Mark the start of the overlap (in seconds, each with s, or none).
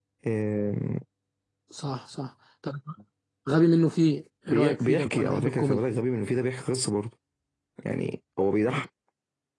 4.5 s